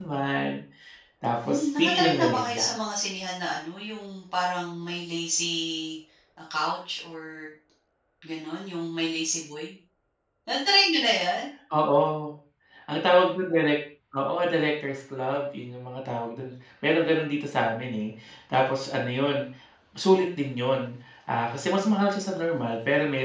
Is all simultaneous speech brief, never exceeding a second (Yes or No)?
No